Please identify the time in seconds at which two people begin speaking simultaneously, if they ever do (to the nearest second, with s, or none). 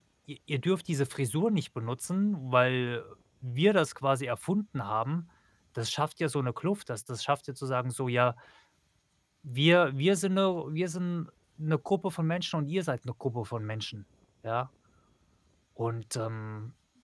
none